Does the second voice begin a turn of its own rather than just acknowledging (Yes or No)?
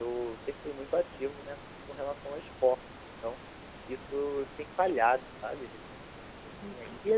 No